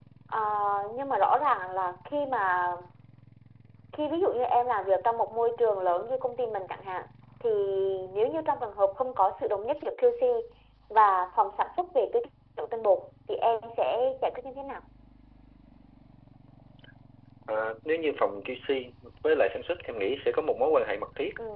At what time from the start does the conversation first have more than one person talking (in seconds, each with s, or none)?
none